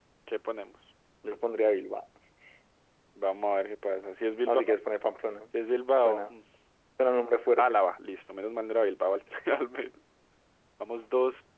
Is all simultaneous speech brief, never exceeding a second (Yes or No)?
Yes